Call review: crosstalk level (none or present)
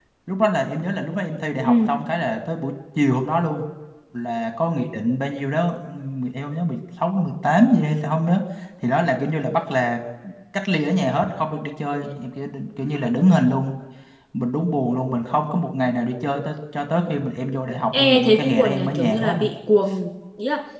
present